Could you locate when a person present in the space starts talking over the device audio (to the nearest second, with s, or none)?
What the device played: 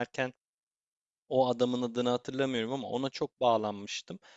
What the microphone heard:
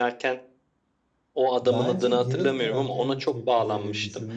2 s